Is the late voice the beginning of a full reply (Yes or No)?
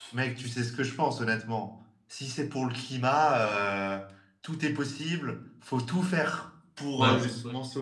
No